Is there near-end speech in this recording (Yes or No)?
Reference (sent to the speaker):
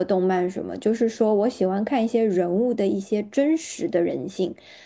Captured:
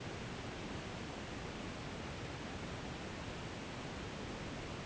No